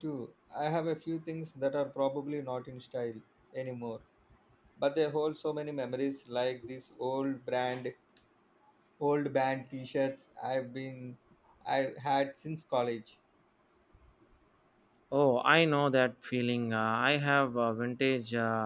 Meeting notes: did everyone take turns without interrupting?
Yes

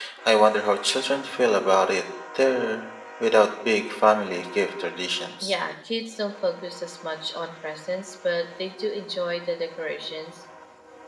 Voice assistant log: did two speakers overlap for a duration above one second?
No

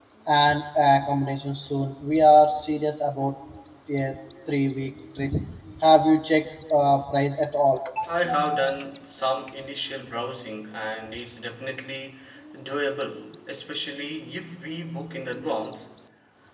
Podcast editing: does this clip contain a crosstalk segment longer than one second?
No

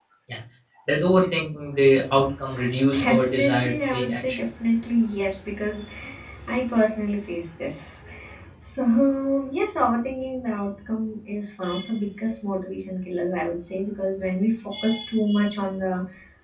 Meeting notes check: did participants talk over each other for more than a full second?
Yes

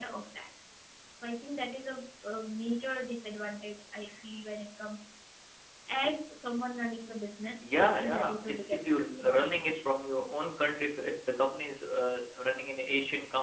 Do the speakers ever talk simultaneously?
Yes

